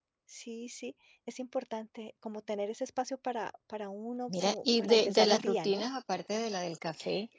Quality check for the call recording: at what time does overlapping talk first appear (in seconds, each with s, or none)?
4.3 s